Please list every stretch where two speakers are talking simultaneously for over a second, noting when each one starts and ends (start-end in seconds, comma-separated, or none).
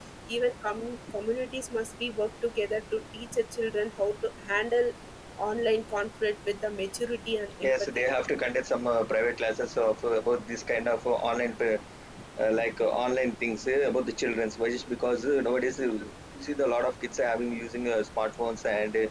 none